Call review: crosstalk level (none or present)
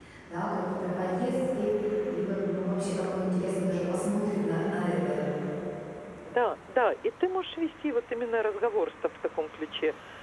none